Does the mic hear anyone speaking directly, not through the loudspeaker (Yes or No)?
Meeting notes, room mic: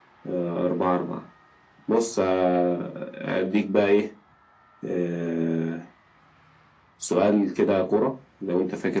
No